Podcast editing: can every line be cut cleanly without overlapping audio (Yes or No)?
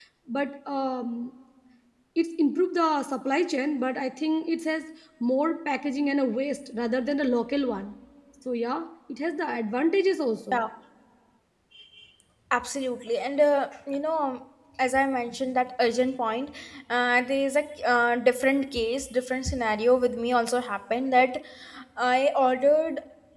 Yes